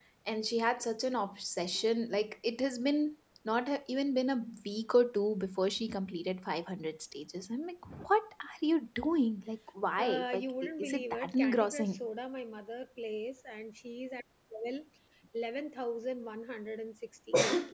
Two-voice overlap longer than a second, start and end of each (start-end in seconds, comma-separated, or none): 10.0-12.1